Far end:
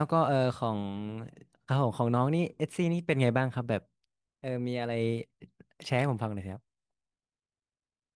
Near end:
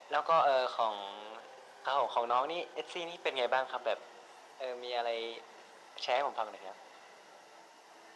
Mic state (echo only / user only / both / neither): echo only